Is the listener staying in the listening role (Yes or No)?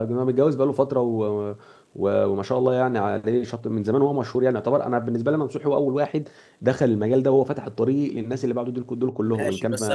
No